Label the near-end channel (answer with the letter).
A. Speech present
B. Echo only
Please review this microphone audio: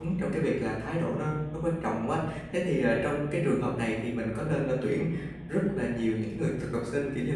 A